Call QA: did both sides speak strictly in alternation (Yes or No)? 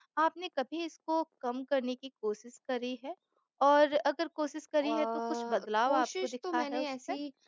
No